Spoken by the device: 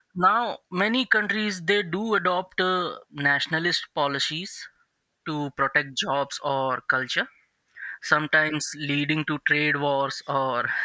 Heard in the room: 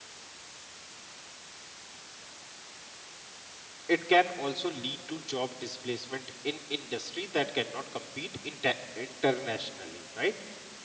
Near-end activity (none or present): present